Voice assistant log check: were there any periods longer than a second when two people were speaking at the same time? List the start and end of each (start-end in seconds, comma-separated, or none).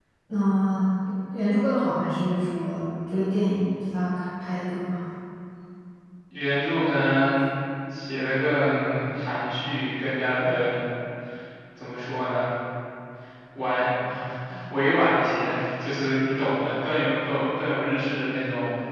none